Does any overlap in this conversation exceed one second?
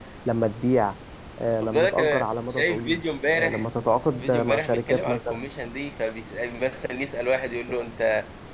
Yes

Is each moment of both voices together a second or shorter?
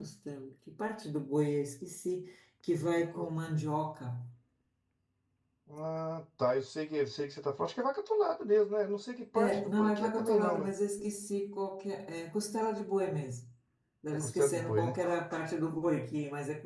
No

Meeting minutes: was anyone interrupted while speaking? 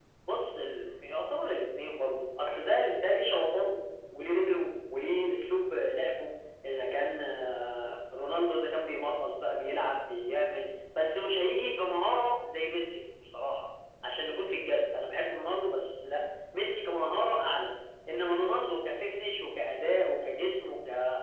No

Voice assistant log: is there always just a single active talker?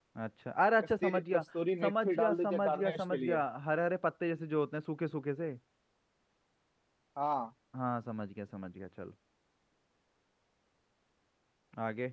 No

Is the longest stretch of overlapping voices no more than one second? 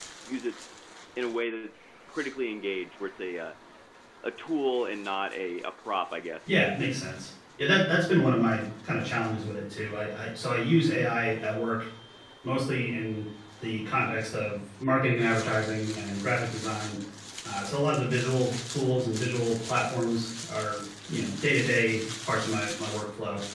Yes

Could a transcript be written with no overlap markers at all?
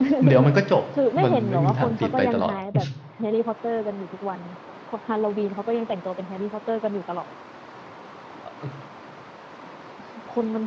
No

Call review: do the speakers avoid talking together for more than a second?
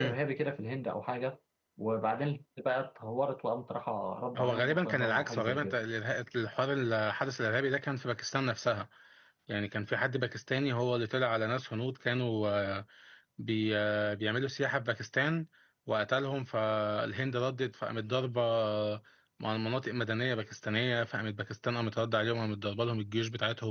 No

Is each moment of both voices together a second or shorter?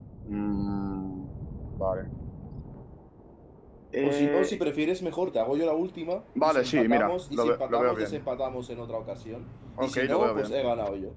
No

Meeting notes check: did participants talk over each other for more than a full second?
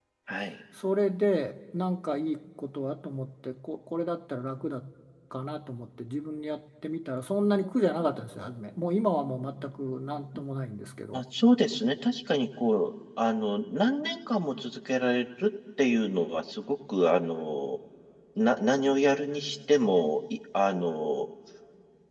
No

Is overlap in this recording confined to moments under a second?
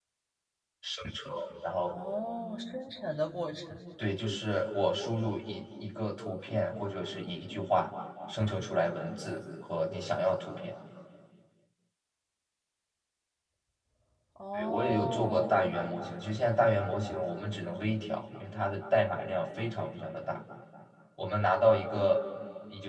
No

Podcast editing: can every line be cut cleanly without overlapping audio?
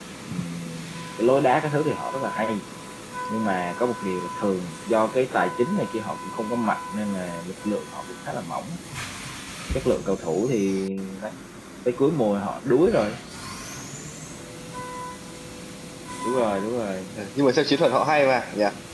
Yes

